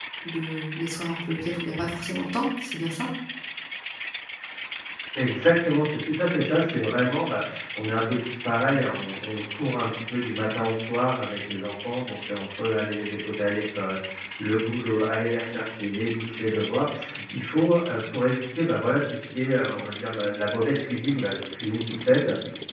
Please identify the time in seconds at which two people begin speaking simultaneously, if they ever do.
none

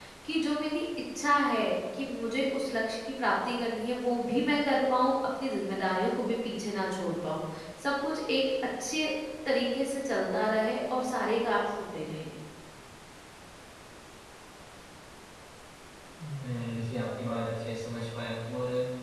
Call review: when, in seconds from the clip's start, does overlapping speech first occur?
none

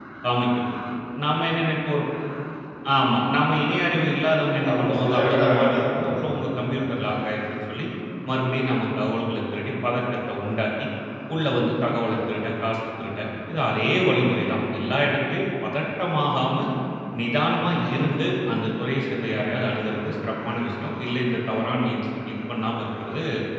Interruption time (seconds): 5 s

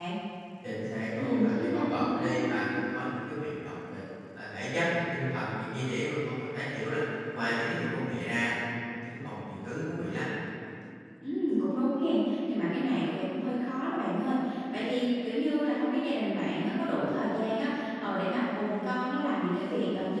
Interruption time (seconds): 1 s

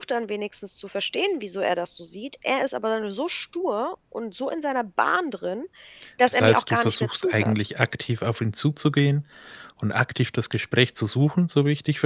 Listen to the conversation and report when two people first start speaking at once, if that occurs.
6 s

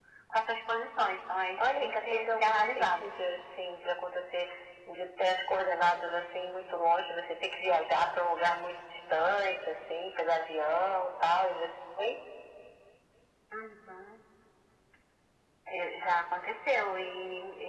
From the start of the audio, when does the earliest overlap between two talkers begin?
2 s

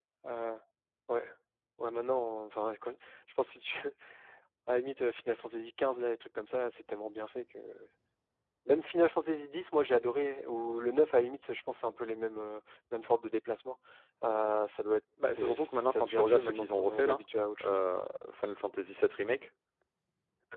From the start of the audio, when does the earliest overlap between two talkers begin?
15 s

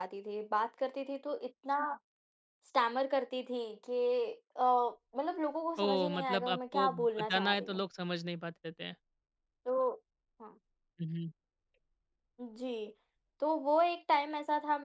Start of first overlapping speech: 6 s

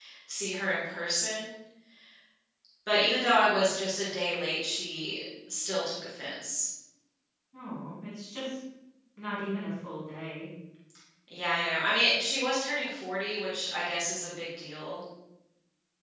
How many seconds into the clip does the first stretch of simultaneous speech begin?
none

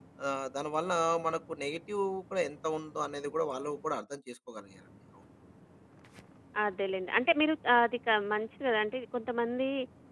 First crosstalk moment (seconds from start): none

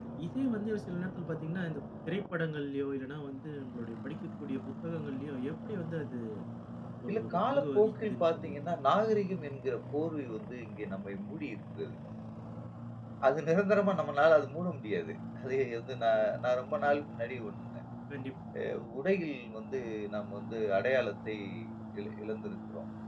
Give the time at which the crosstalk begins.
7 s

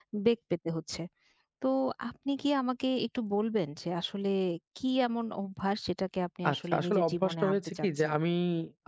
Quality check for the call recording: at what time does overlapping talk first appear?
6 s

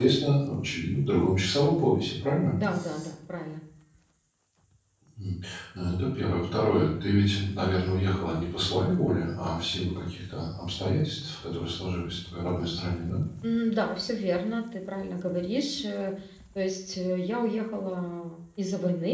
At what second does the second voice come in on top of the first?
none

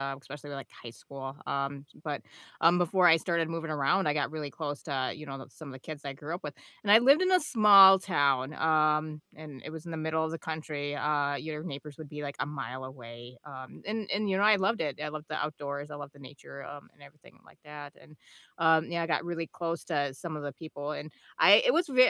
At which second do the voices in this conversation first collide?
none

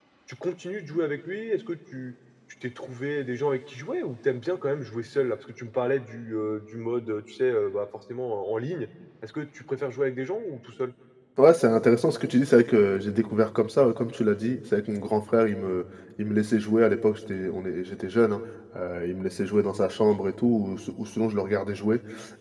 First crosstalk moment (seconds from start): none

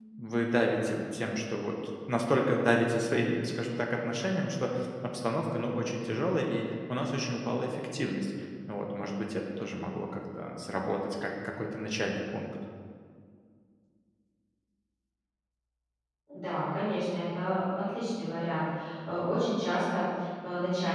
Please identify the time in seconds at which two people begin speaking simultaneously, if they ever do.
none

